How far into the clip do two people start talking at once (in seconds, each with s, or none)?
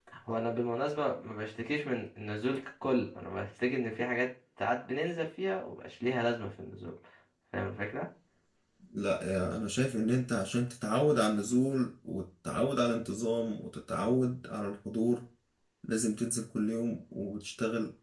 none